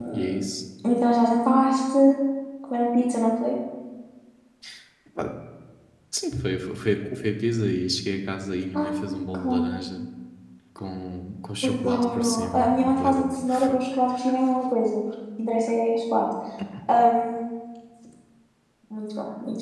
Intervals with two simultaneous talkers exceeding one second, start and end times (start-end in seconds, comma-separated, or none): 11.6-13.8